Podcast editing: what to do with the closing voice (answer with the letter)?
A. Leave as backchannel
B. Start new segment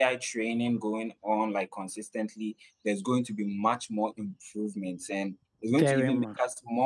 A